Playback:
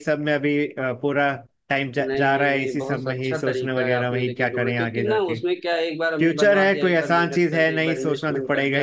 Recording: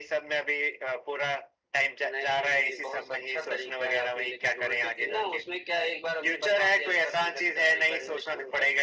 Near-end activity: none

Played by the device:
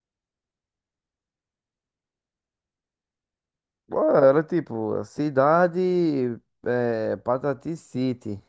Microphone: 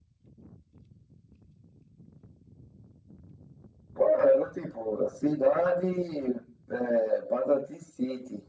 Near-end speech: none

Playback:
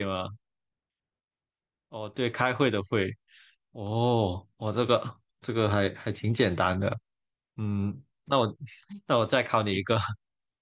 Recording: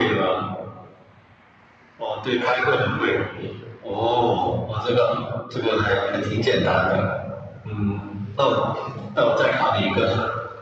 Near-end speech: none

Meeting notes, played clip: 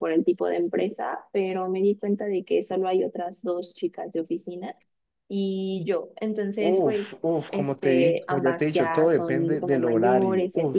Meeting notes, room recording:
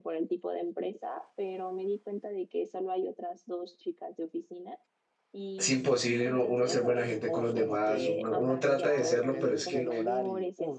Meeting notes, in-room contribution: present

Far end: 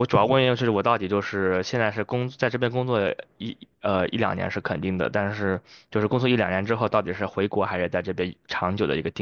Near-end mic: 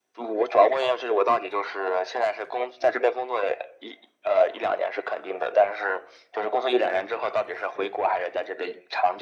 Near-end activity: none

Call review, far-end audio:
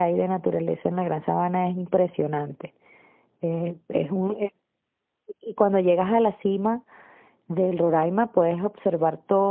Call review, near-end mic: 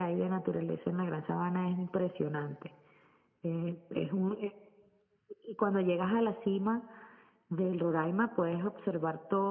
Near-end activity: none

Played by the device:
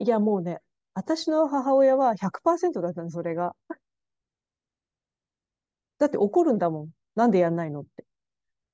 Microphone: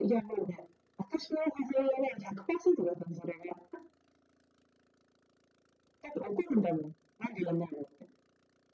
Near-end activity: none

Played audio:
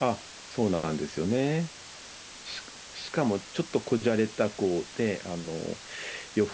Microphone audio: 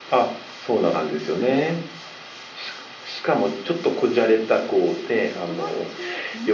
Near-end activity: present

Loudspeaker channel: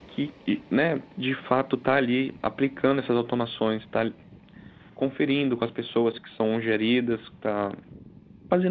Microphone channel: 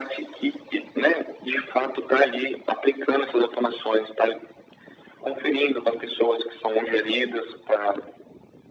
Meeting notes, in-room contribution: none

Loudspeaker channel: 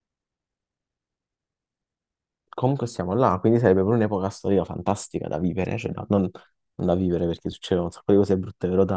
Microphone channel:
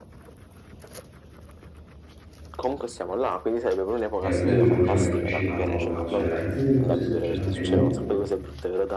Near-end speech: present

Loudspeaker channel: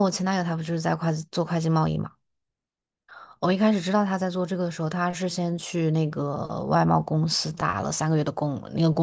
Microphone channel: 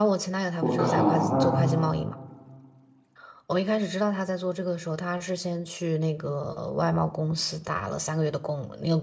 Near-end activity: present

